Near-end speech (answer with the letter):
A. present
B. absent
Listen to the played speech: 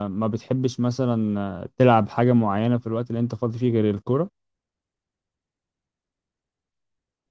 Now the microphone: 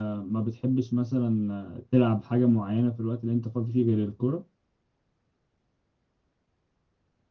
B